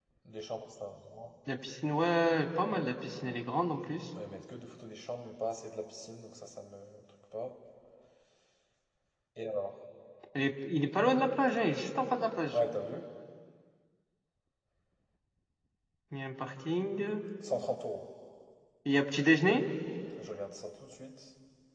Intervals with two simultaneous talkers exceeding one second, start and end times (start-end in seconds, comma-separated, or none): none